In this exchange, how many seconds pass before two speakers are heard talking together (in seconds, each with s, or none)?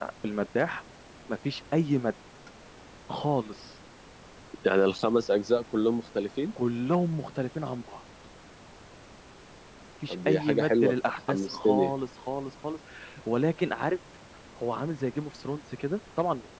10.1 s